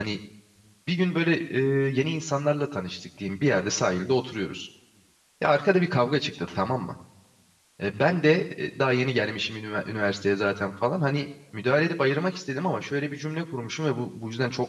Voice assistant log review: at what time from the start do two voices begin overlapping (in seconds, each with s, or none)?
none